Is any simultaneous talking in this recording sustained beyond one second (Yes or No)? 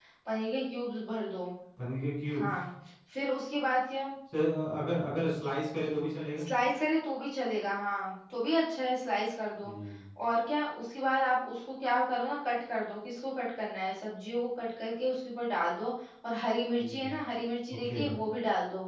No